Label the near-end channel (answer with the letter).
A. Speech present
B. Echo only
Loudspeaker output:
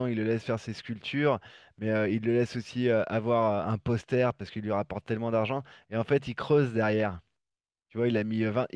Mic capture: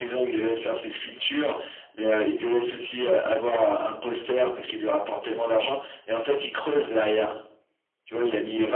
B